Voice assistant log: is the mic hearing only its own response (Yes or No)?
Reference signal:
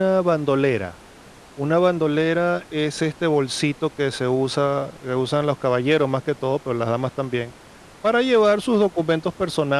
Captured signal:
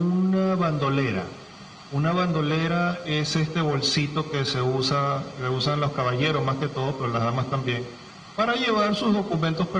Yes